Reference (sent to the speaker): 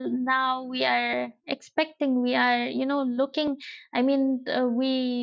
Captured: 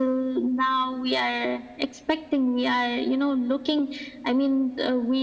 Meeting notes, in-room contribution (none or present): none